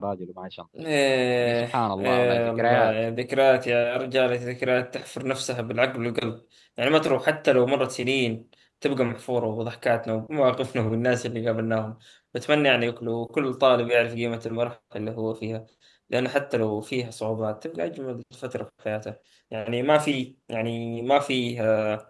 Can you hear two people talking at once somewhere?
Yes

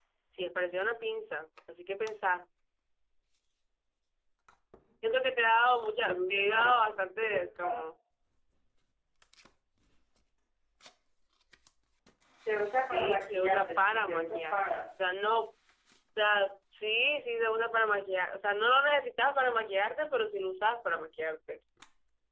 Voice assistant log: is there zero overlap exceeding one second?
No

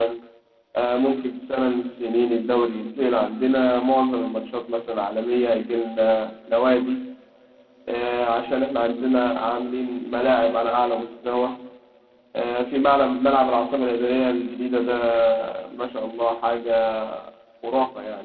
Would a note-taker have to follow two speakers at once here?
No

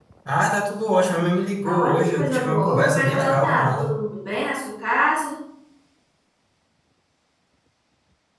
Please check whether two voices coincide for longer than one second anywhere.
Yes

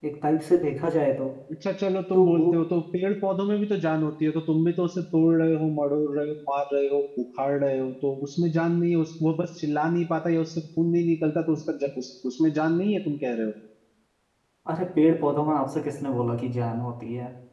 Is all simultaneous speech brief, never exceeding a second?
Yes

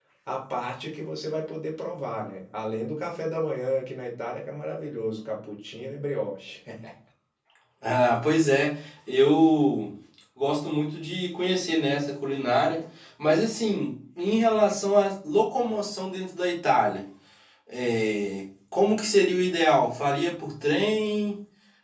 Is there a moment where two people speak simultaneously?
No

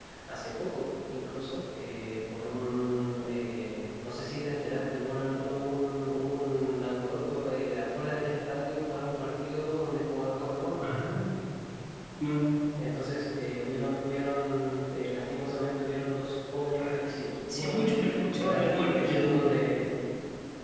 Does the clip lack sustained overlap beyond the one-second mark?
No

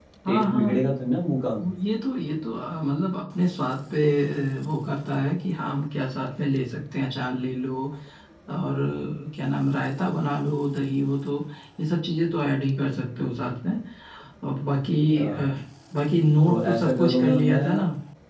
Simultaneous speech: Yes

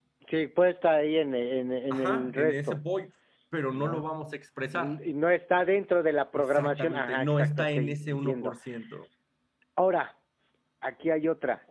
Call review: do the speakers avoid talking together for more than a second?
No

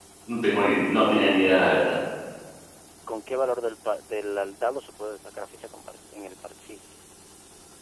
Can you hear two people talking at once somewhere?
No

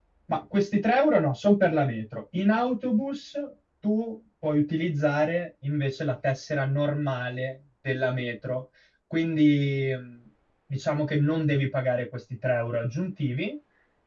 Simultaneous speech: No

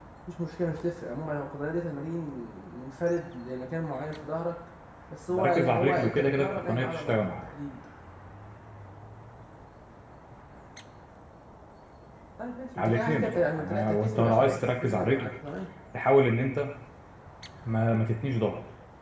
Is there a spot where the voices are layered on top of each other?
Yes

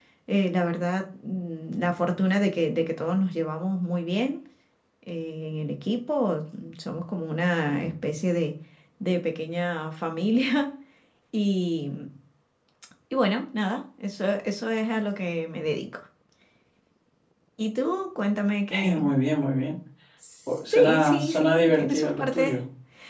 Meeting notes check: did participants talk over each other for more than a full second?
Yes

